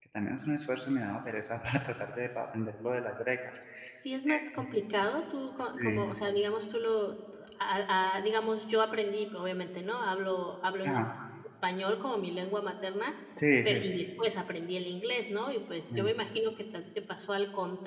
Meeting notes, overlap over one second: none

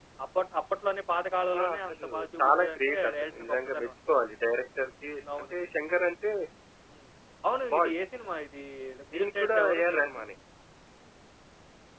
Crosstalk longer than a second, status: present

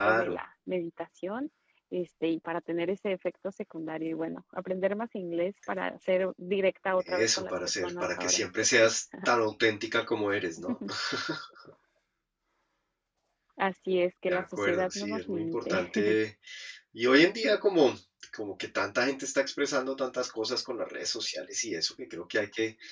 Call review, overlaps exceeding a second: present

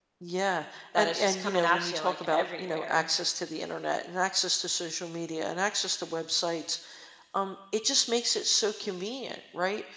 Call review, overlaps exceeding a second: present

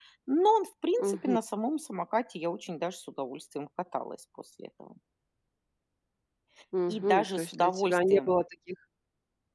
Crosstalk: present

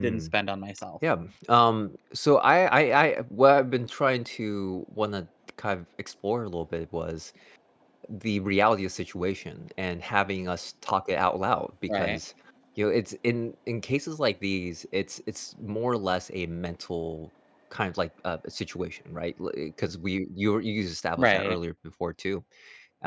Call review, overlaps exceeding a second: none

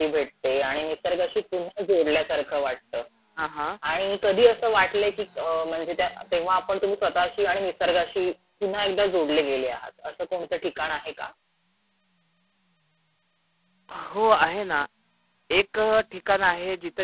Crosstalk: none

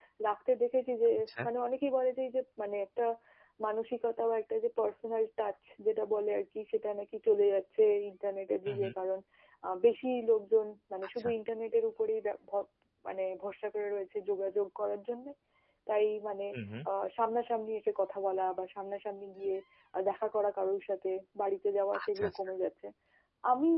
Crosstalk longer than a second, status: none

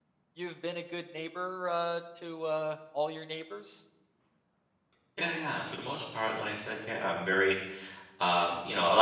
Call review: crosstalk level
none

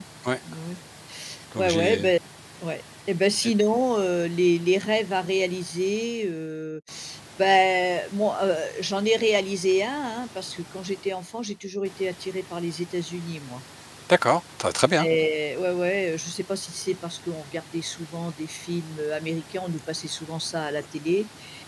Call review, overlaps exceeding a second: none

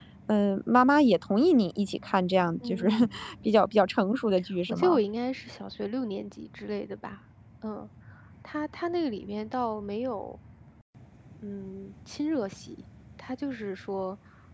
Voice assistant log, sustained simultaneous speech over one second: none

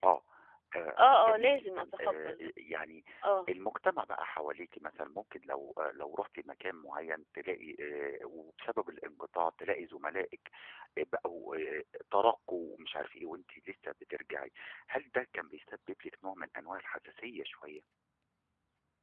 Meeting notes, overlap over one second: present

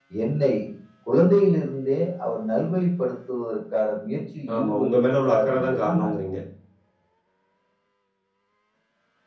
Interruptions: present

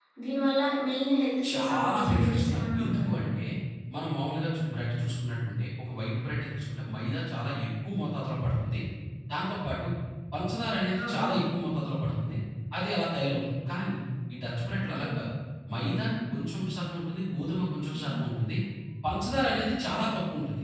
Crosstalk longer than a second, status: present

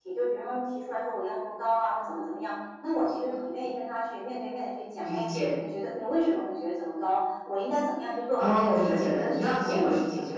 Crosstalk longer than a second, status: present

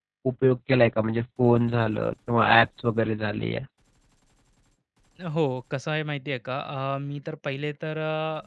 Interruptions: none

